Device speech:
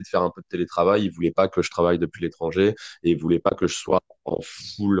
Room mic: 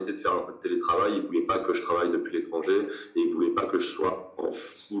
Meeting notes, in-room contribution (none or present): none